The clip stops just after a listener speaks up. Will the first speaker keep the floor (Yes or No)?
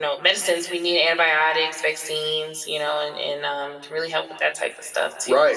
No